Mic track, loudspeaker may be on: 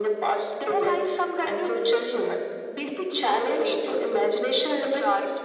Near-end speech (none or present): none